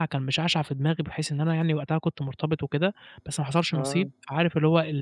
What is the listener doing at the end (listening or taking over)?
listening